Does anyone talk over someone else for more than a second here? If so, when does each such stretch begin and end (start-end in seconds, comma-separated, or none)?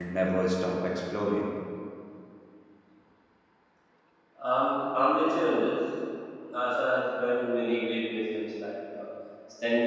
none